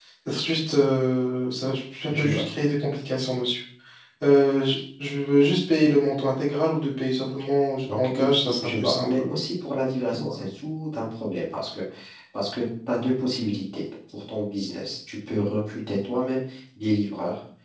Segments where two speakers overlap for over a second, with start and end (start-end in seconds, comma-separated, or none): 7.9-9.2